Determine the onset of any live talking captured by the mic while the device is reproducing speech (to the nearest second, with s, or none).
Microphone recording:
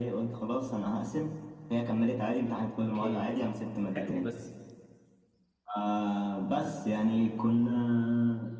3 s